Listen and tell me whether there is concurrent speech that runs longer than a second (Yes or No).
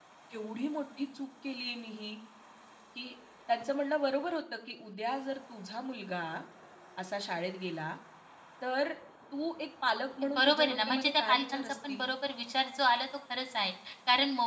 Yes